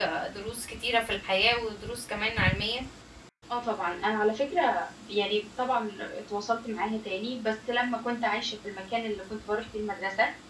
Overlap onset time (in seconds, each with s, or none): none